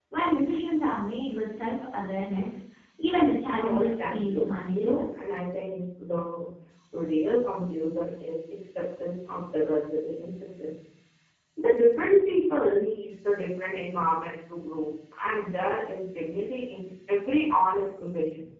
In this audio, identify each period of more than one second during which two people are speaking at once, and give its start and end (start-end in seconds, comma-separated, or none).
3.6-5.0